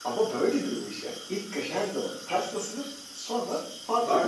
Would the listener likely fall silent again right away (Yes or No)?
No